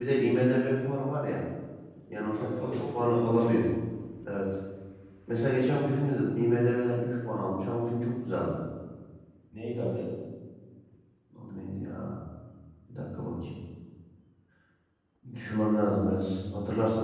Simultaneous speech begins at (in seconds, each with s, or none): 2.3 s